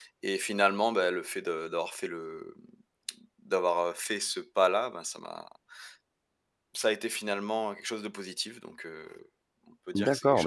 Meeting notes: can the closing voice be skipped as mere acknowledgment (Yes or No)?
No